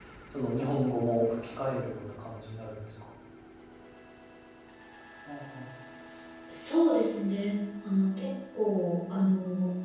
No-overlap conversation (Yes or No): Yes